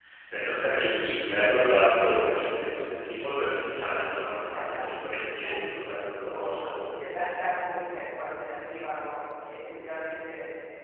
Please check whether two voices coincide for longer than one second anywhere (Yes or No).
Yes